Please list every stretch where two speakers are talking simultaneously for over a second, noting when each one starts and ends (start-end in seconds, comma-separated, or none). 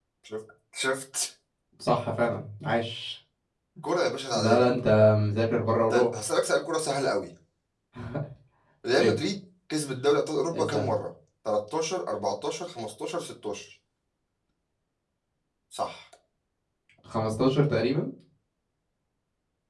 none